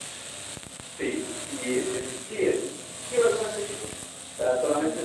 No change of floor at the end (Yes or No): No